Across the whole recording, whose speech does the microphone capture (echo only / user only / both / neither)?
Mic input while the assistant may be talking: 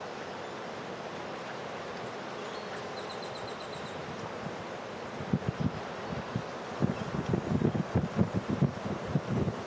neither